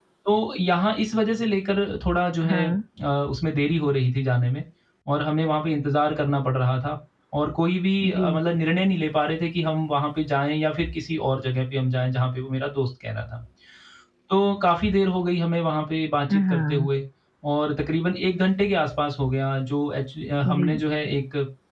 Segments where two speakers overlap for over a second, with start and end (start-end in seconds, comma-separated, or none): none